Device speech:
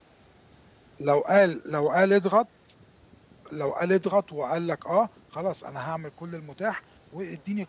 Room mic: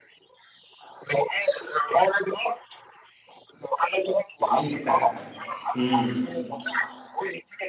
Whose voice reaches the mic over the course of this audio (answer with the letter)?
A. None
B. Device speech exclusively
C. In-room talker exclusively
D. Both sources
D